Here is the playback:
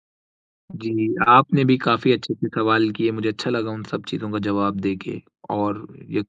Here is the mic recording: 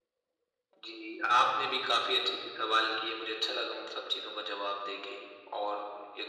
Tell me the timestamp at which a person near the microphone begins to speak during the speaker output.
none

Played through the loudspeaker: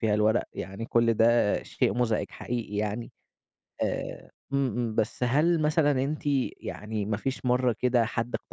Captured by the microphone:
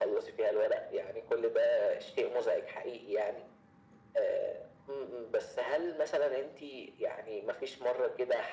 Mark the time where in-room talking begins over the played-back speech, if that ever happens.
none

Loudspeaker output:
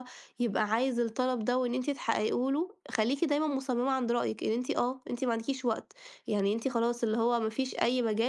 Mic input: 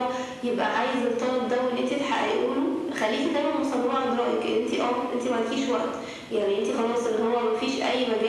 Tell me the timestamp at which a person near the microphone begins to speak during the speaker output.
none

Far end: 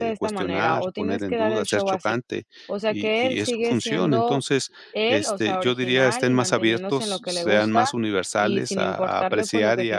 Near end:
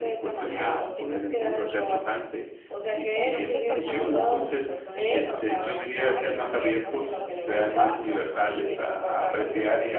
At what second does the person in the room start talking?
3 s

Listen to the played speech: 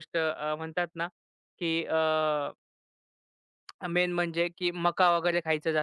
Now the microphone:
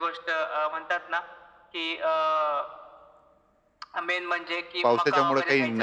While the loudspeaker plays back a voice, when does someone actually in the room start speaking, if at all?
5 s

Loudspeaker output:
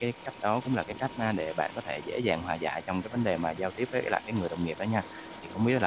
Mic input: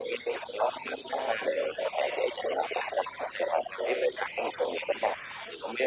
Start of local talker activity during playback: none

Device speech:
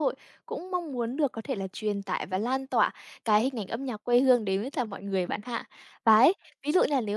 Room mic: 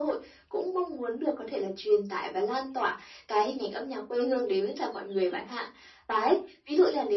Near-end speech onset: none

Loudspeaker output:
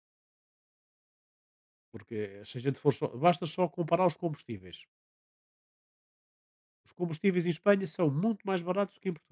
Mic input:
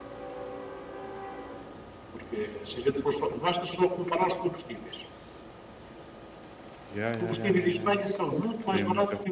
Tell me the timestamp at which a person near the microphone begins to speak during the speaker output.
7 s

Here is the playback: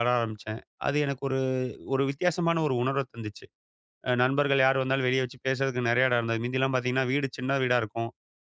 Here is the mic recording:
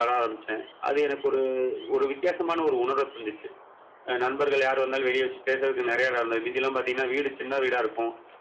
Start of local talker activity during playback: none

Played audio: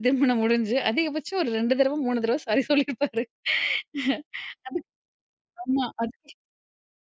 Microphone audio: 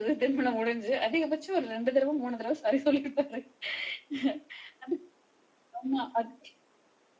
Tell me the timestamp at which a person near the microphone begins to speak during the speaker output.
none

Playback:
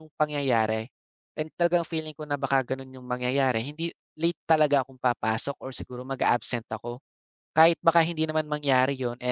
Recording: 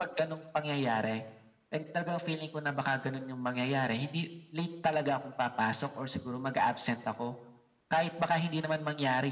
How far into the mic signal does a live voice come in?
none

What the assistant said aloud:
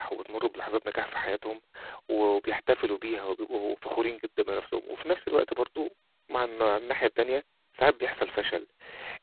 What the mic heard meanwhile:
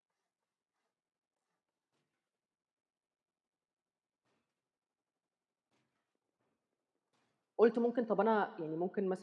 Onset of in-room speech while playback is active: 8 s

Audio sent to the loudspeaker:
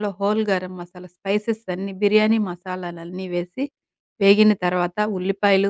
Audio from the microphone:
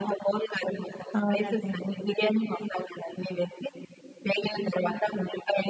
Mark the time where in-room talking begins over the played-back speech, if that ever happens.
1 s

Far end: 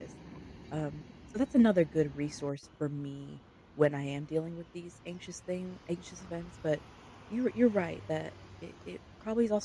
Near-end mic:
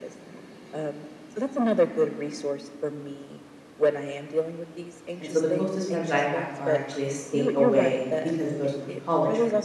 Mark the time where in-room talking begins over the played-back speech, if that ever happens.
5 s

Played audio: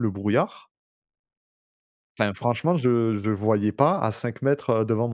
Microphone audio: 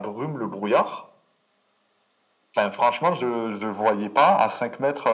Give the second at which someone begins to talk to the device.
none

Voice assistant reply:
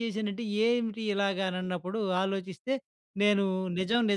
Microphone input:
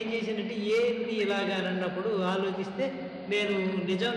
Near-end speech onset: none

